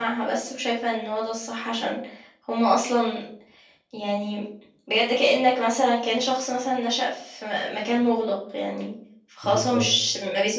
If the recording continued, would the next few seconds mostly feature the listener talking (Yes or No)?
No